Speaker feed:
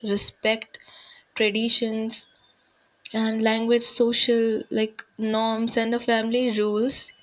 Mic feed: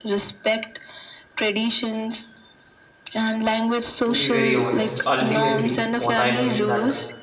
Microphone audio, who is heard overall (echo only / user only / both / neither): both